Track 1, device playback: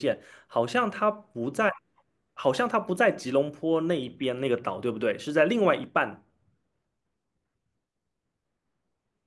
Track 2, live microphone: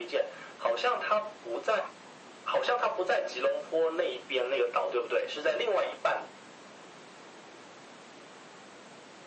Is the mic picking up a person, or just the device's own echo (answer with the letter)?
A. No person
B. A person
A